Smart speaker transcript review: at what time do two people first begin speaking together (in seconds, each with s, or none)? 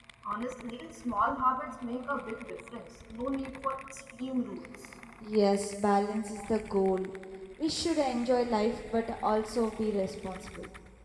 none